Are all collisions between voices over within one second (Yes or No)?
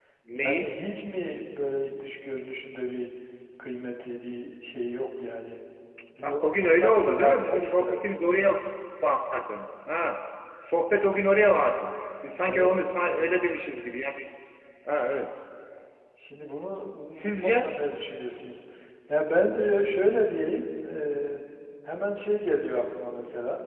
No